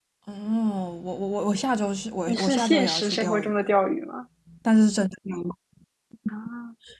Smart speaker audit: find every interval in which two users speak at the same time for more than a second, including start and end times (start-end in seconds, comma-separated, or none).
2.3-3.5